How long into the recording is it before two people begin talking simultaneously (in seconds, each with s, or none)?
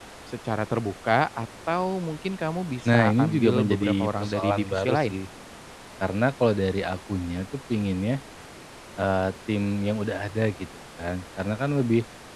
2.9 s